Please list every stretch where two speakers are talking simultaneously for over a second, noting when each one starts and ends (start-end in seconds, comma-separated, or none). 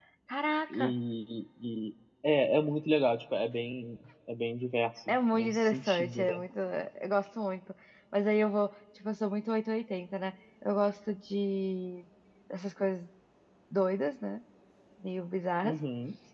5.1-6.4